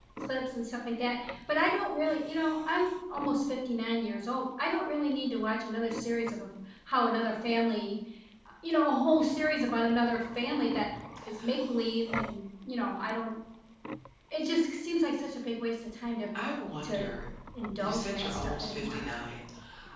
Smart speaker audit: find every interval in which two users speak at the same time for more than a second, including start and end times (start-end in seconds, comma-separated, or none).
17.8-19.0